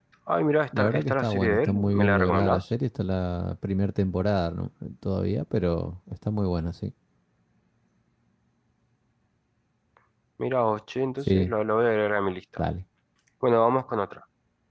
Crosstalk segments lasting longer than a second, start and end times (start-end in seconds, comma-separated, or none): 0.8-2.6